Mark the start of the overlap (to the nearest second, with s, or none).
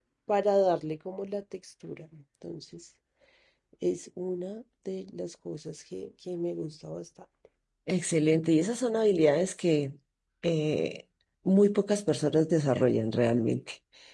none